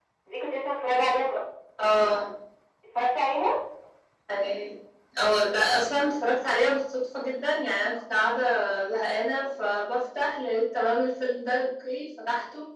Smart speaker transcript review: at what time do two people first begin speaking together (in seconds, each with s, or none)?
none